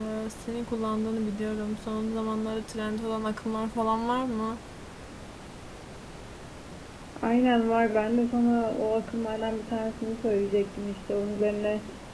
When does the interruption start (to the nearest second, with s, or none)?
none